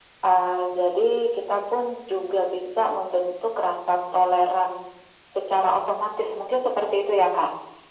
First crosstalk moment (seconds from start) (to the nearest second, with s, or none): none